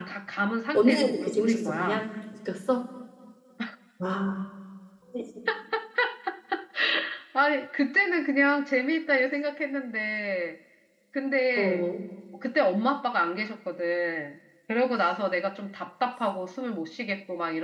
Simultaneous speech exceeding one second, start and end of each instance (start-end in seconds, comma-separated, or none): 0.7-2.0